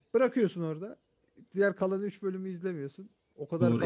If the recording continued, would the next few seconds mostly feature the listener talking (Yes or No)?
Yes